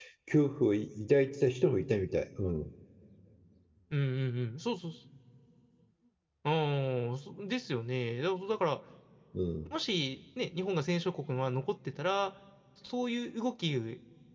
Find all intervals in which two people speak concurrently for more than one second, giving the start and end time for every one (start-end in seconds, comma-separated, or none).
none